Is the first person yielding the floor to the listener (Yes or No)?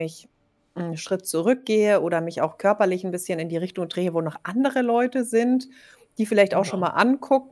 No